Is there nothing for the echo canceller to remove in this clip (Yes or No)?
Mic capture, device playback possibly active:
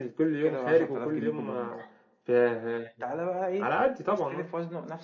No